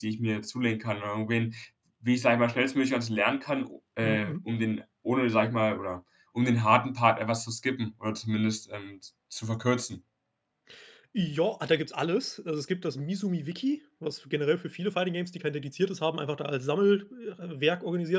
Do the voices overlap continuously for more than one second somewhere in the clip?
No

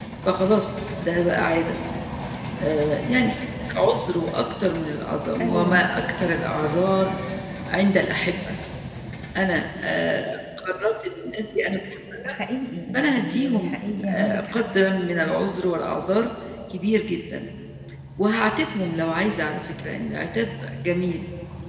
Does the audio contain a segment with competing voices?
Yes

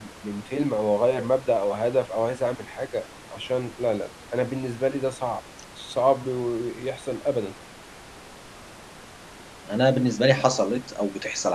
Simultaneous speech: No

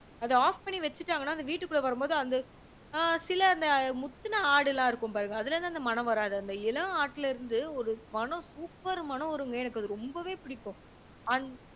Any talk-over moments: No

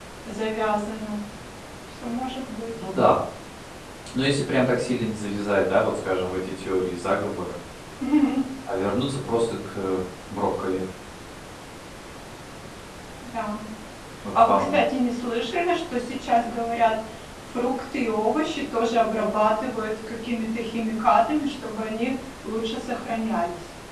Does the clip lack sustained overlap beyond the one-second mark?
Yes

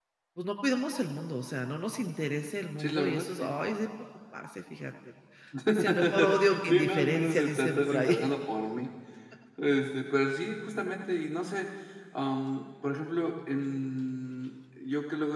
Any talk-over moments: Yes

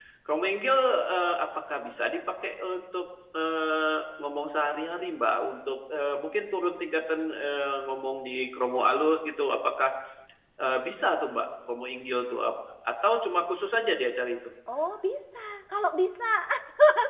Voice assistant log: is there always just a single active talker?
Yes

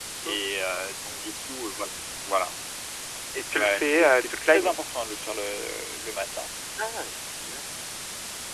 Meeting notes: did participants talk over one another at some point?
Yes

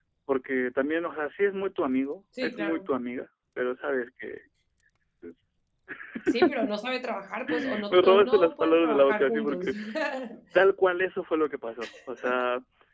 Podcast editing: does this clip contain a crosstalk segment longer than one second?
Yes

